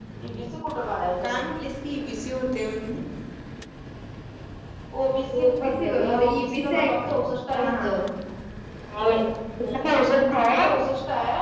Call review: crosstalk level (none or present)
present